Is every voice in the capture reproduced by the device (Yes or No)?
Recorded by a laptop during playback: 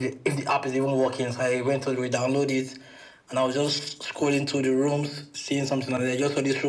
Yes